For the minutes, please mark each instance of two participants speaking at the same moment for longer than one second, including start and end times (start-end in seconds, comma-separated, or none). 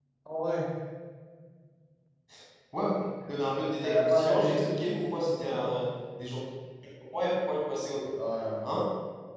3.8-5.6